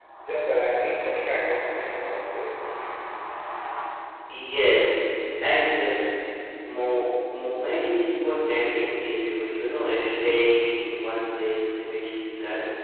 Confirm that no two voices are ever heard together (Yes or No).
Yes